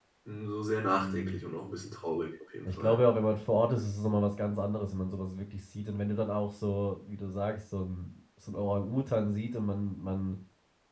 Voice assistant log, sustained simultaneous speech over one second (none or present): none